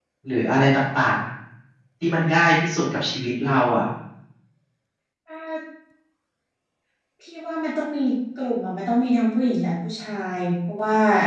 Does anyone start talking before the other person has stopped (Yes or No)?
No